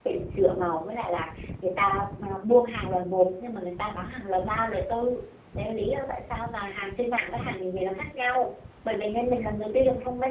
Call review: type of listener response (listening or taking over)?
listening